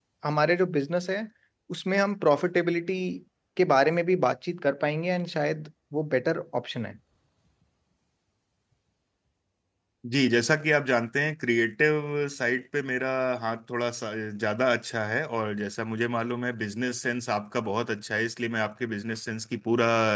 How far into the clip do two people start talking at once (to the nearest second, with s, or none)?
none